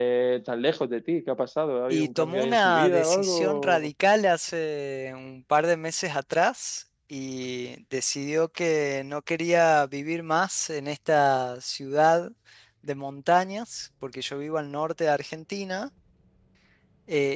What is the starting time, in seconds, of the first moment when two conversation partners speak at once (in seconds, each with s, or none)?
1.9 s